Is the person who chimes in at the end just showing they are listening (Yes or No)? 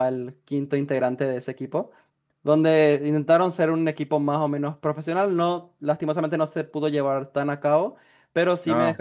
Yes